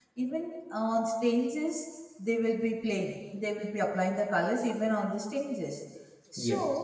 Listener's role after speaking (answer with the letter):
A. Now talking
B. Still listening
B